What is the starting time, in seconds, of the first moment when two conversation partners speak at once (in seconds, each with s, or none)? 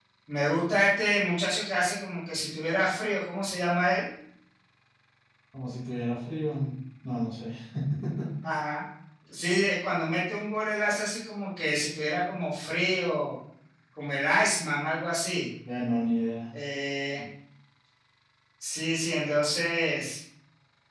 none